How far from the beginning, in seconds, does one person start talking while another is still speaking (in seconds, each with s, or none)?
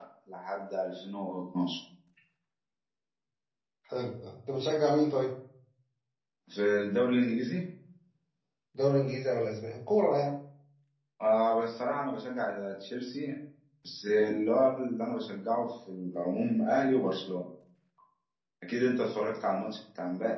none